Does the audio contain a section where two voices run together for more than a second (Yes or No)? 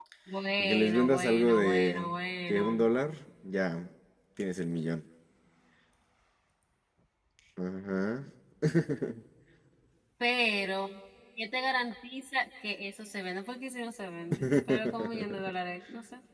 Yes